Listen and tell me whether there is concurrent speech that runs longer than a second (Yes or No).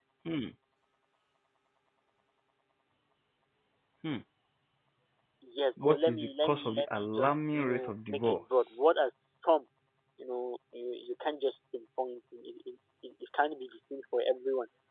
Yes